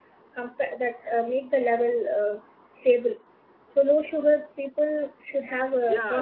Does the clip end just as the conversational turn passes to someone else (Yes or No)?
Yes